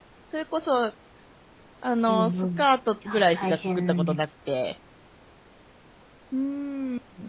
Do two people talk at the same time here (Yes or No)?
Yes